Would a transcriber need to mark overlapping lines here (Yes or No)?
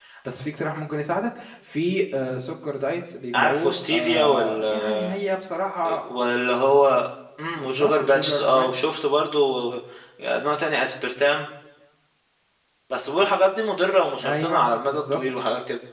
Yes